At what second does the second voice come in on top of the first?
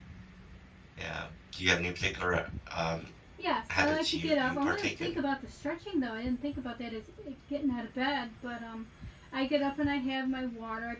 4 s

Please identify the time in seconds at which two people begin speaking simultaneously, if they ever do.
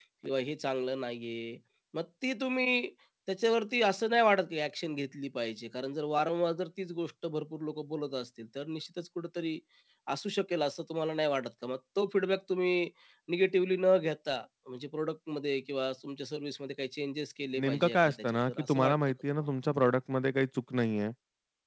18 s

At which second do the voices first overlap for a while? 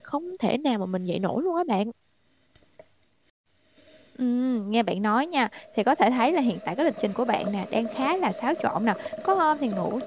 none

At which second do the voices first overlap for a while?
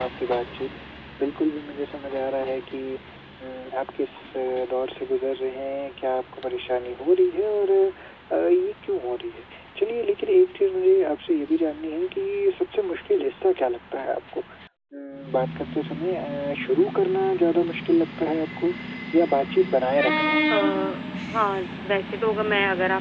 none

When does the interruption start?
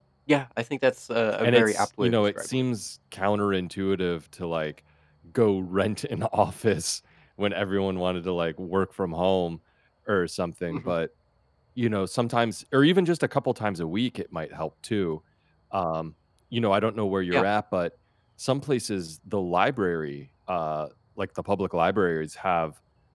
1 s

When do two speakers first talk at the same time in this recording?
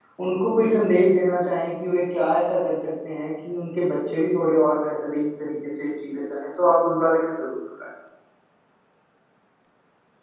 none

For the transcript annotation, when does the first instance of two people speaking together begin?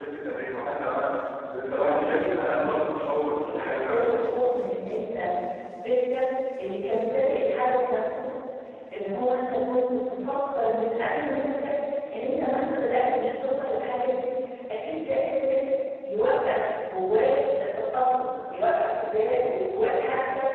2 s

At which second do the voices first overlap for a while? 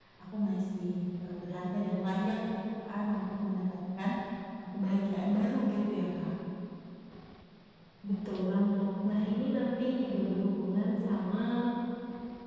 none

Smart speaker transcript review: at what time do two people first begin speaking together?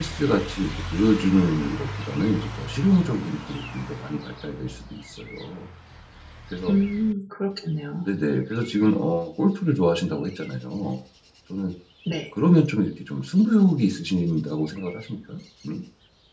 none

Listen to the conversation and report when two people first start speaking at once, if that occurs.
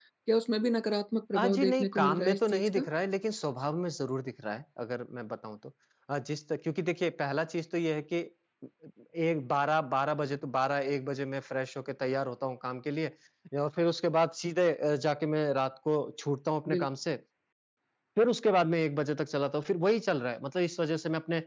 1 s

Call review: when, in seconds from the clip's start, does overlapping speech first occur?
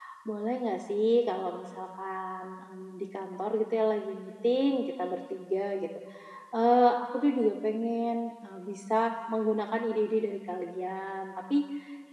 none

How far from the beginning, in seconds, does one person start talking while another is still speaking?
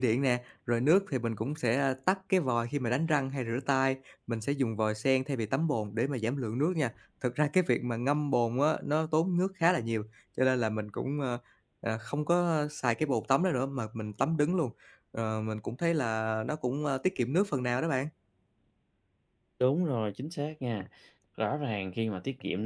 none

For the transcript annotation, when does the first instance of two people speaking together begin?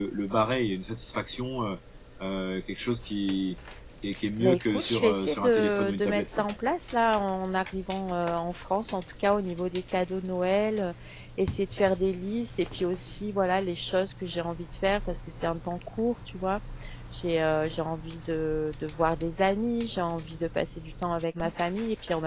4 s

